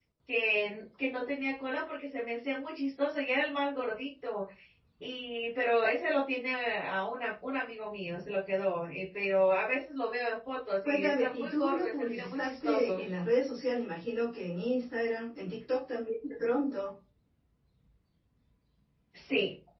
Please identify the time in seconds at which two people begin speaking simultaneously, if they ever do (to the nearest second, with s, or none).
11 s